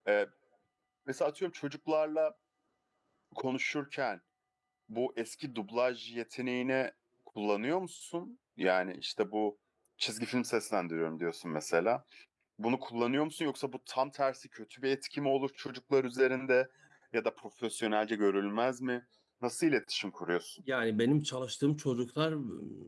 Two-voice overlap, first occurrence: none

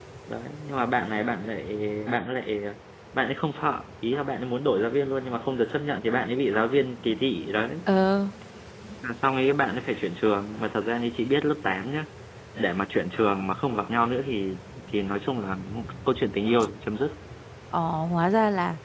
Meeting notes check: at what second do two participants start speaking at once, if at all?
none

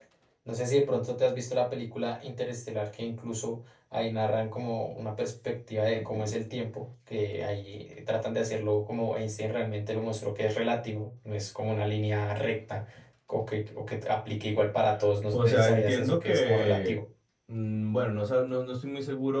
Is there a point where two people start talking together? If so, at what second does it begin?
15.3 s

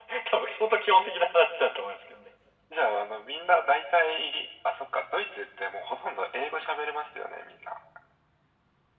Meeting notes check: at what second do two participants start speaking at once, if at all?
none

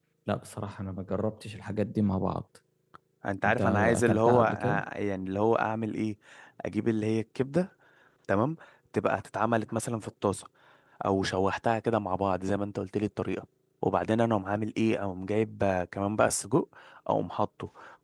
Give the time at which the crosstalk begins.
3.5 s

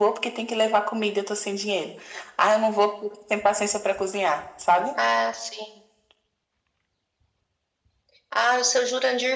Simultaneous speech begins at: none

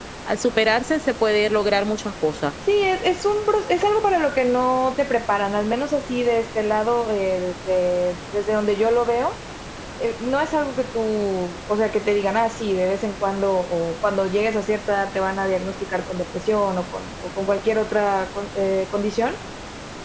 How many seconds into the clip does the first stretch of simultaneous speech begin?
none

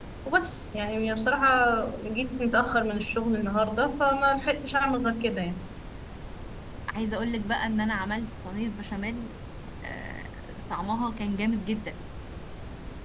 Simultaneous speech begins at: none

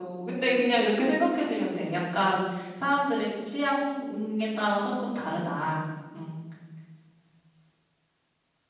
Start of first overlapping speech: none

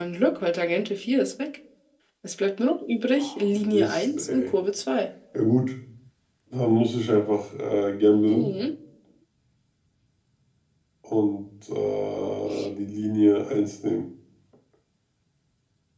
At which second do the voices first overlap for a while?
3.2 s

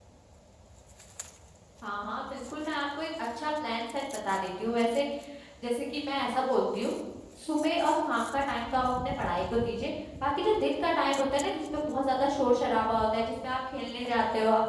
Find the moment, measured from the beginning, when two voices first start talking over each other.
none

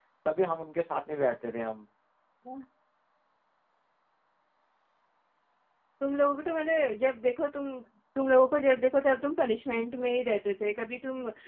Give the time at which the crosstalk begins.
none

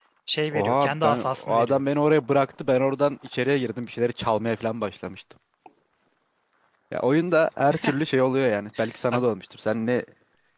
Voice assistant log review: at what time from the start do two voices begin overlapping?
0.6 s

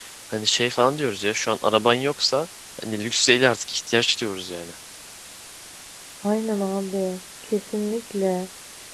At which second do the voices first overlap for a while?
none

